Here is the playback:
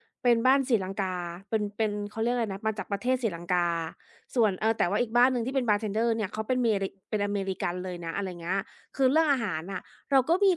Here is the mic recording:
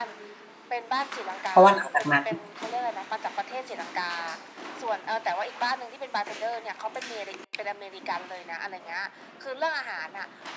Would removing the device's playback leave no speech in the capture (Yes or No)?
No